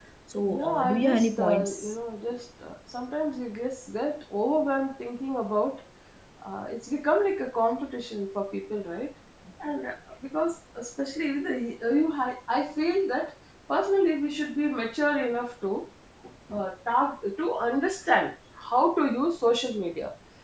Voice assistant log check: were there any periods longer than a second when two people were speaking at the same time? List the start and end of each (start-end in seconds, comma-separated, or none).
0.6-2.0